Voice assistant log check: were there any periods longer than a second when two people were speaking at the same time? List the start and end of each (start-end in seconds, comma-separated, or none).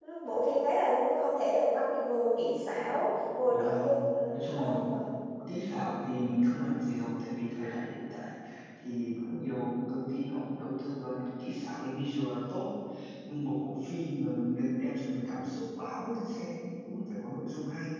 none